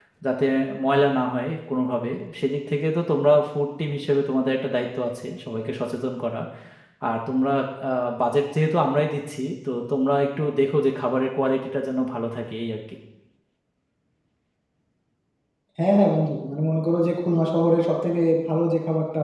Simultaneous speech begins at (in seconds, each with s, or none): none